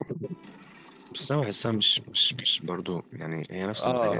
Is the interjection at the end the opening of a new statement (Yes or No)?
Yes